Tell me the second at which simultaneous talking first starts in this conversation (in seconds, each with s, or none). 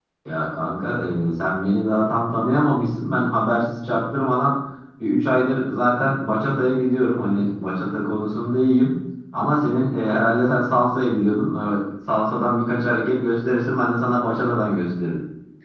none